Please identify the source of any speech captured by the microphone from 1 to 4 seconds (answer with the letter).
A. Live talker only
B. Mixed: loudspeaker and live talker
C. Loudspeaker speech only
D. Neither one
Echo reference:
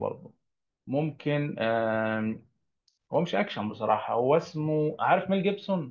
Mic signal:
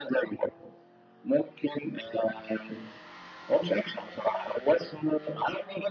C